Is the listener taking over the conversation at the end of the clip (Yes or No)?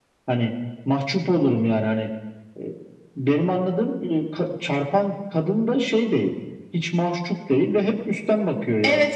No